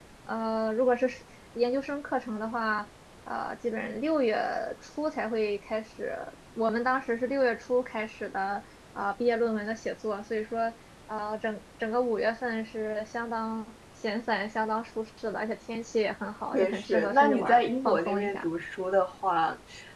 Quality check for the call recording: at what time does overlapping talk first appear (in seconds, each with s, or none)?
16.5 s